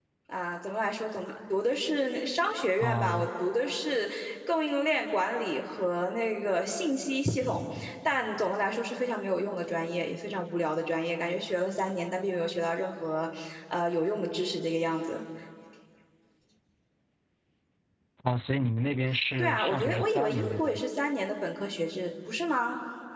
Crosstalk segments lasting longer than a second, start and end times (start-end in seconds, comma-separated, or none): 19.4-20.8